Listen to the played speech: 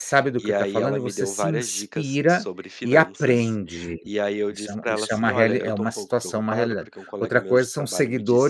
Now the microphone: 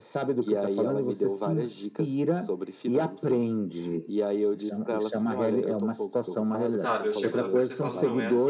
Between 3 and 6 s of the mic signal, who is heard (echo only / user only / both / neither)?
echo only